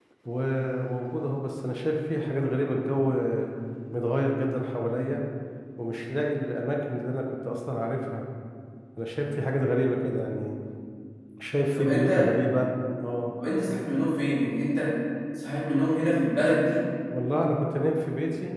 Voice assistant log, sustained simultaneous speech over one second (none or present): none